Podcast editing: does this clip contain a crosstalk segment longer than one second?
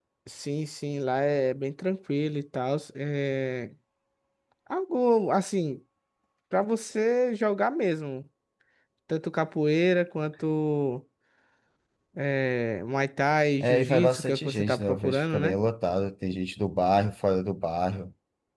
Yes, from 13.6 s

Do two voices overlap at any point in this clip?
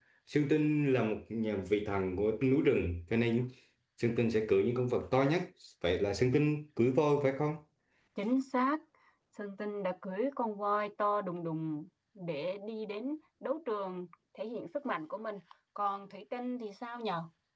No

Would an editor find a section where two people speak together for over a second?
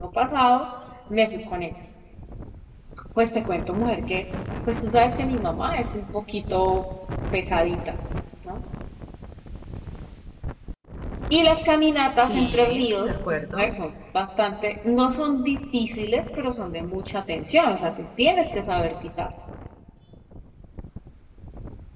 Yes, from 12.2 s

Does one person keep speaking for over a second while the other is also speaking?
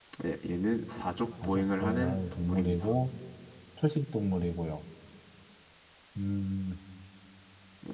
Yes, from 1.4 s

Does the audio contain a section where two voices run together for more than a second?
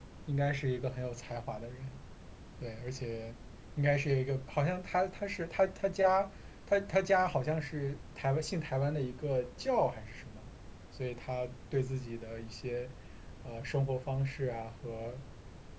No

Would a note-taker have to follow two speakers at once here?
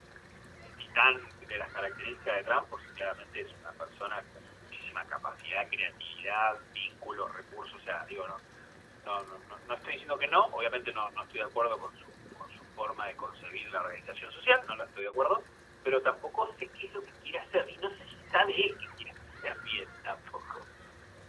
No

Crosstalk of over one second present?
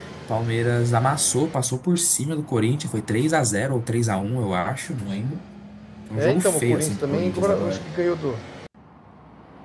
Yes, from 6.2 s

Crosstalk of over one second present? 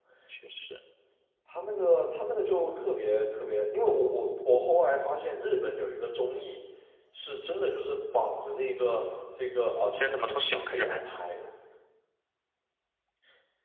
Yes, from 10.0 s

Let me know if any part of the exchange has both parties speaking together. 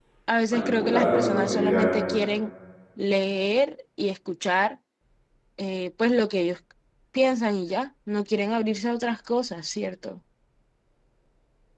Yes, from 0.5 s

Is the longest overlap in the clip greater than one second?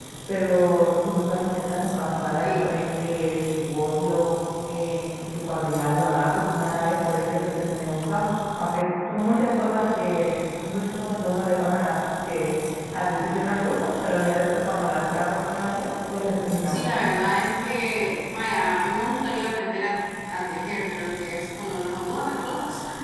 No

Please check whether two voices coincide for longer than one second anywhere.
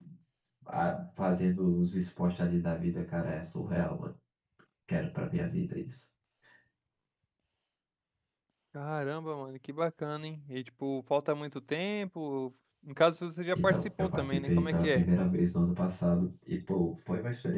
Yes, from 13.6 s

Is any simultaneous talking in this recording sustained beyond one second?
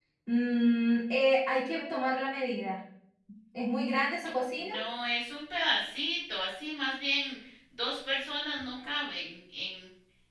No

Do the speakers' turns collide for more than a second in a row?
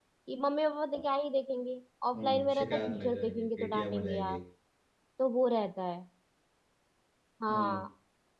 Yes, from 2.1 s

